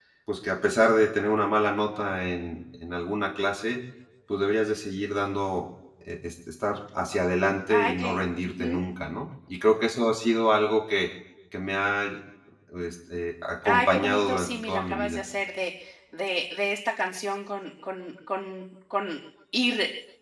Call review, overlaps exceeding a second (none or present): present